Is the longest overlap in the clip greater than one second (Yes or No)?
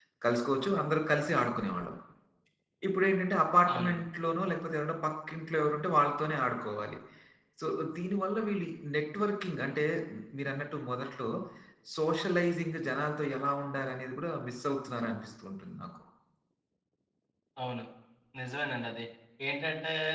No